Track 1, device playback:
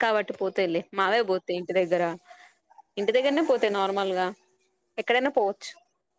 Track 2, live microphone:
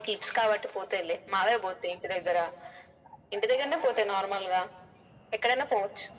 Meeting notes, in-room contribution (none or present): none